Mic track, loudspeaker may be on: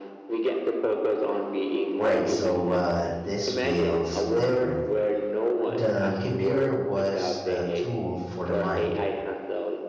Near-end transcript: Right, so uh, this feels different. The computer was a tool for the mind.

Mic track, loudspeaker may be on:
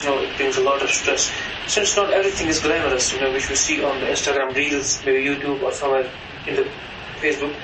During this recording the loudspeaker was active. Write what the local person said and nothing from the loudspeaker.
none

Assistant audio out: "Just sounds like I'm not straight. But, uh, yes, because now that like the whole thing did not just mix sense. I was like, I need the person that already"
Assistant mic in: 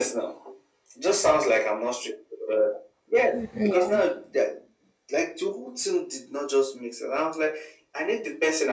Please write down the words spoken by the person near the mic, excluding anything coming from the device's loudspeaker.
Yeah.

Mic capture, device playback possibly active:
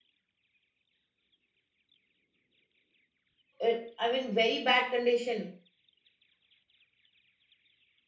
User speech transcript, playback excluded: uh, i mean very bad condition

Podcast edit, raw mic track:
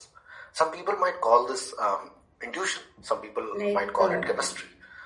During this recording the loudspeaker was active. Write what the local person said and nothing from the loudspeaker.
like uh,

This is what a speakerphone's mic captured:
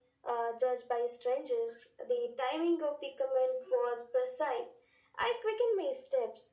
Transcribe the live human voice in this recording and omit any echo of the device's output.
none

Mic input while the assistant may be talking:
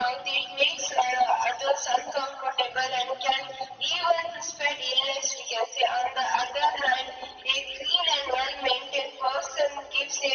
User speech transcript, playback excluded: none

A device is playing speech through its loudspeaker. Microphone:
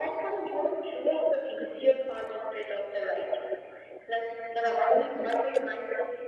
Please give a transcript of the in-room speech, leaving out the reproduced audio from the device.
none

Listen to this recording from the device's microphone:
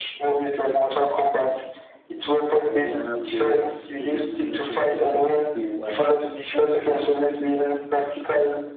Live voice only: another way of maybe not respecting people and

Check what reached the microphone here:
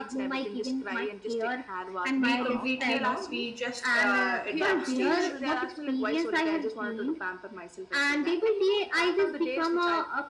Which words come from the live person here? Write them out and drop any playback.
we completely know we just uh, at that stage

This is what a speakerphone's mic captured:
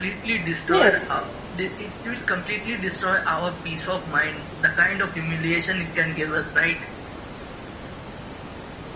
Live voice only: Yes,

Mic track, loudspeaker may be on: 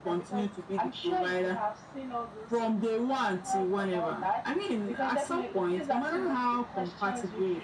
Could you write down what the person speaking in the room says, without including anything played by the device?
none

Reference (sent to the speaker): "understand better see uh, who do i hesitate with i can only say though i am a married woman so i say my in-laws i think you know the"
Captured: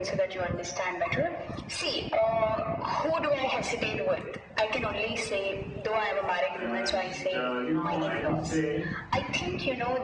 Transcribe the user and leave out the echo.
Uh, just uh, you know, I would say

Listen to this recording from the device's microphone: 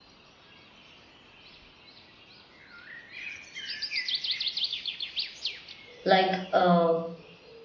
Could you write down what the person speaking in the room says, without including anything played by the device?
like uh,

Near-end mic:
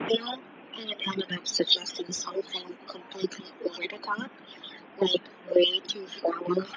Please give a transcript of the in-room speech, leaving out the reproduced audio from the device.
none

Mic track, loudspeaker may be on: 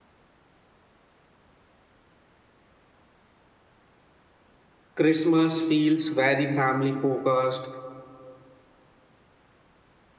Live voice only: Christmas feels very family focused.

